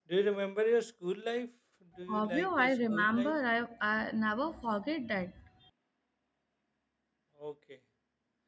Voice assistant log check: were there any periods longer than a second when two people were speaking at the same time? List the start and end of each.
2.1-3.4

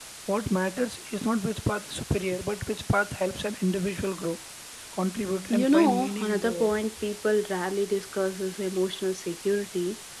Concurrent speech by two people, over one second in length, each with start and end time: 5.5-6.8

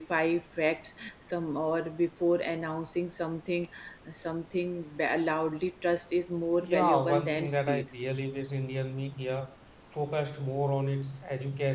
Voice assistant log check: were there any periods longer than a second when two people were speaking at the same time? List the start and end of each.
6.6-7.8

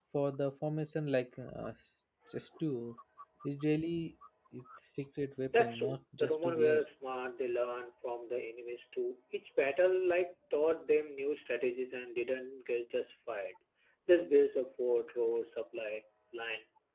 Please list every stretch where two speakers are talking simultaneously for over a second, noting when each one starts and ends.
5.6-6.8

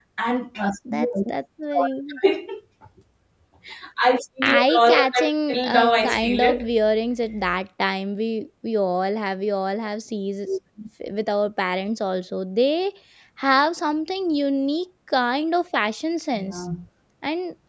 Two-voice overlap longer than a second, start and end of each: 4.4-6.7

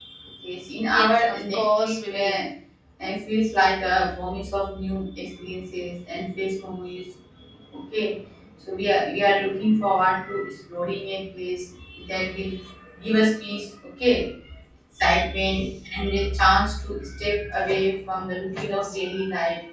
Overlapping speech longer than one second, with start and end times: 0.9-2.3

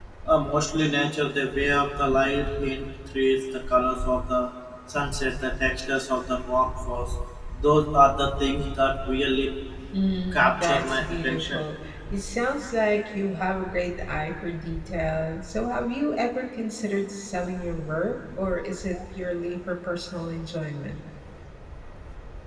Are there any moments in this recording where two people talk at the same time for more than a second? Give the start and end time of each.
10.3-11.6

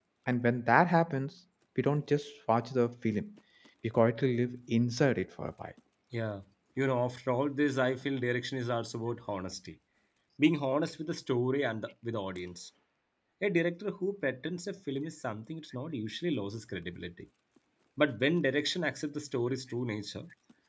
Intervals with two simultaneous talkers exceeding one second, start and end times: none

